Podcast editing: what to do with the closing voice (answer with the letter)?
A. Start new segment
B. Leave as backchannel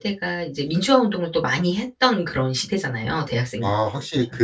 A